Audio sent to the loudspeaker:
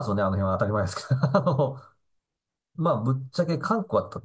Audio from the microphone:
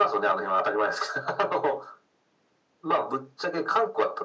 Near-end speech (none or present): none